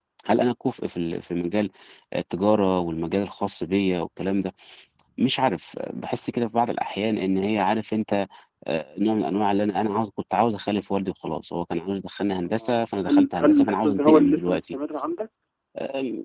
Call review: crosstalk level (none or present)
present